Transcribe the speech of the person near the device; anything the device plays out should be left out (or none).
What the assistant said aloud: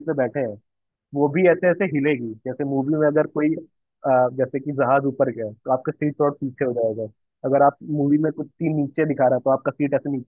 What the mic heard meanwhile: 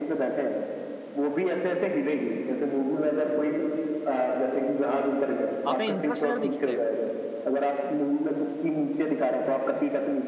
आपने इंटरस्टेलर देखी है